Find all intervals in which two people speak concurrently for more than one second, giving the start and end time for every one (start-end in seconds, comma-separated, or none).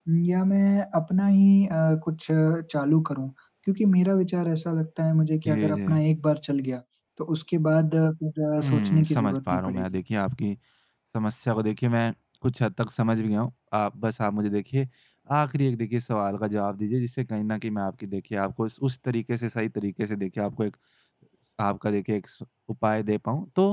8.6-9.8